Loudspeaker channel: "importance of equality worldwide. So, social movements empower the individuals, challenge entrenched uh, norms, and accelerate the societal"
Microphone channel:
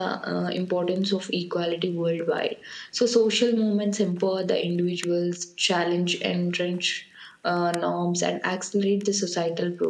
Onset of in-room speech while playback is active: none

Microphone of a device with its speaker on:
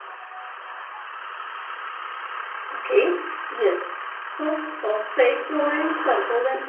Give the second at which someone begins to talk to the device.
none

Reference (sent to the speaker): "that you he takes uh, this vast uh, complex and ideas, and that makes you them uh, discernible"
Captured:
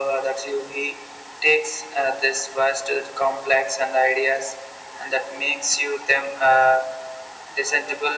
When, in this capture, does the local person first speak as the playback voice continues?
none

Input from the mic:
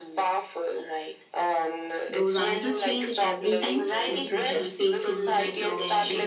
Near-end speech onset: 2.1 s

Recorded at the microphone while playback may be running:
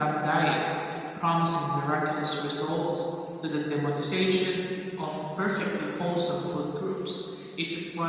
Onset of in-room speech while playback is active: none

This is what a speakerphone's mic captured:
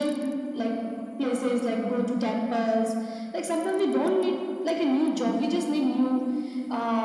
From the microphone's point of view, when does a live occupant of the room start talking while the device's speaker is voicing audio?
none

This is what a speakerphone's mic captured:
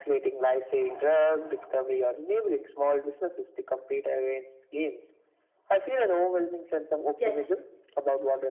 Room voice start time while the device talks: 7.1 s

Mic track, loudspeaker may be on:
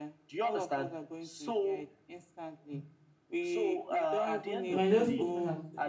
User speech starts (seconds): 4.7 s

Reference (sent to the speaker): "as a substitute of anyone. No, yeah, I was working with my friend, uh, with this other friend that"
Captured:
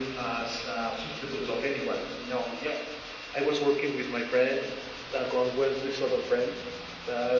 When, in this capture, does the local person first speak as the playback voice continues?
none

